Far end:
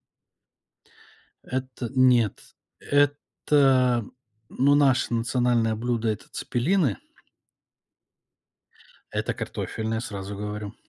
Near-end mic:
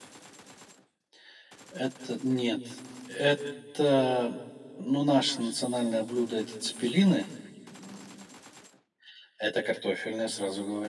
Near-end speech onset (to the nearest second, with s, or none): none